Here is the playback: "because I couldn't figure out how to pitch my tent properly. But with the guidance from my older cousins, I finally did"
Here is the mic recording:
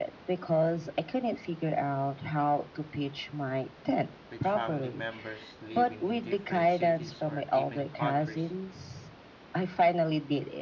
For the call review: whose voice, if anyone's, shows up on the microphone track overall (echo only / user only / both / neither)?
both